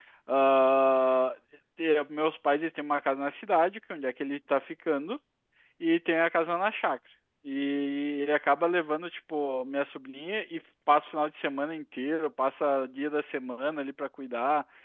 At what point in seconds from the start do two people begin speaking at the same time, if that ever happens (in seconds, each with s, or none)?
none